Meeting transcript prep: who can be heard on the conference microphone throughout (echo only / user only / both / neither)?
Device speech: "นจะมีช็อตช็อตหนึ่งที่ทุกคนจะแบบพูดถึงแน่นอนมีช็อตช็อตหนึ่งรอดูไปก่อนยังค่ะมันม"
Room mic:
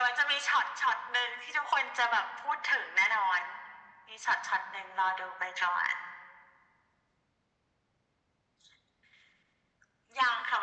echo only